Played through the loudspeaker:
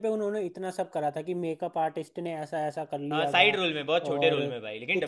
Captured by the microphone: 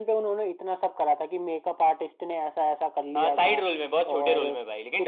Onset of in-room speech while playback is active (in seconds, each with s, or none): none